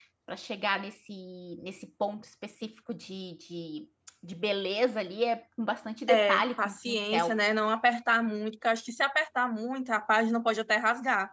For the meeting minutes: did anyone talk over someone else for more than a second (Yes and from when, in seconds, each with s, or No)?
Yes, from 6.1 s